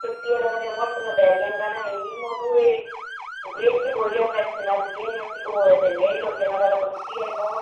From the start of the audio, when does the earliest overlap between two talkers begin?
none

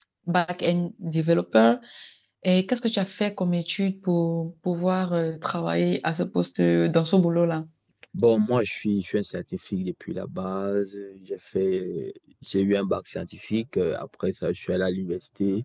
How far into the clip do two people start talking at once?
none

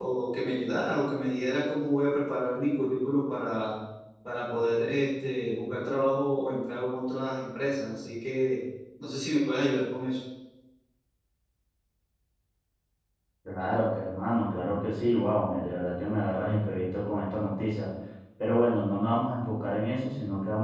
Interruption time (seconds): none

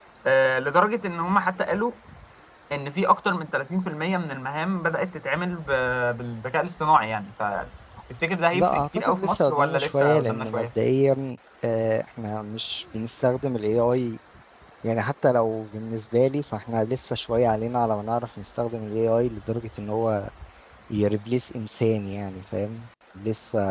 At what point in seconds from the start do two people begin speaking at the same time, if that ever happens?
9 s

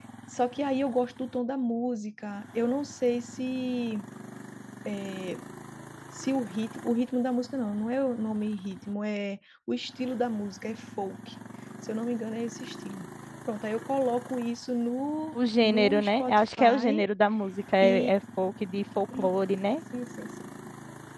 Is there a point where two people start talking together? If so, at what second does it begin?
16 s

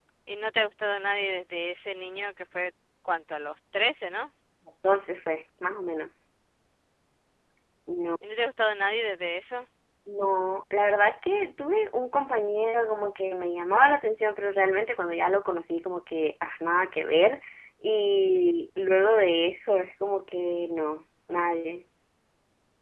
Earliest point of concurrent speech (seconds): none

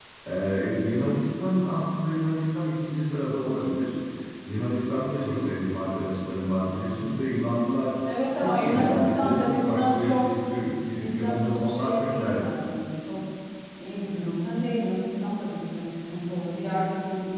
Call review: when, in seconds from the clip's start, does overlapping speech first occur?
8 s

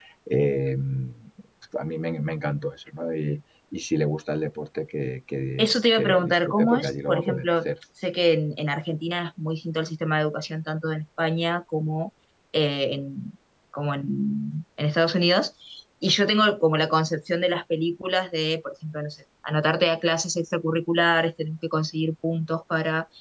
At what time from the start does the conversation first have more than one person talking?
6 s

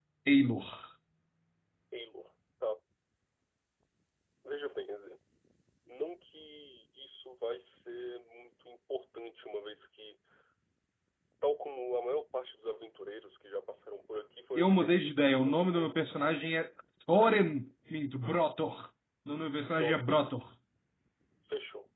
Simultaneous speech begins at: 15 s

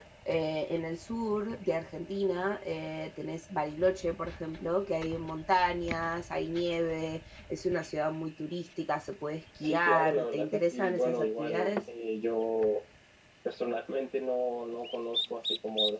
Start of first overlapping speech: 10 s

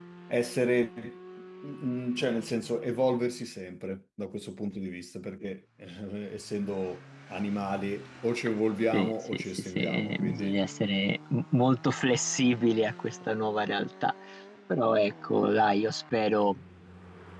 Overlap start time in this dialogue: 9 s

